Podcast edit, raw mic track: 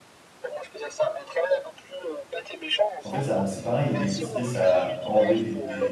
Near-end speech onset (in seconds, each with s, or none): 3.0 s